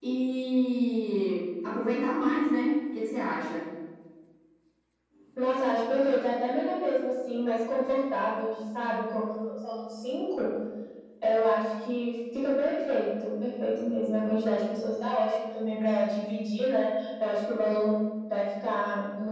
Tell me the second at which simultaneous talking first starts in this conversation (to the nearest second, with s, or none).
none